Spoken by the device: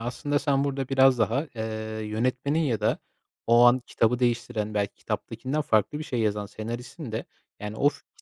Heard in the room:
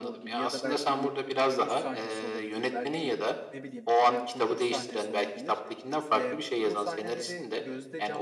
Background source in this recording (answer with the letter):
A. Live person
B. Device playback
A